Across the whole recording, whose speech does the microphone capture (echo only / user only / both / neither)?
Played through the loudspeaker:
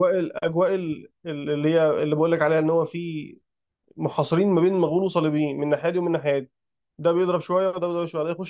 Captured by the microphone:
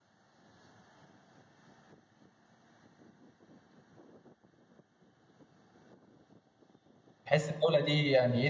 user only